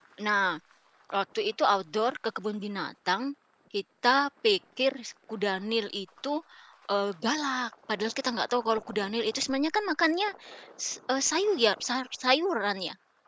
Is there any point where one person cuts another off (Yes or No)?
No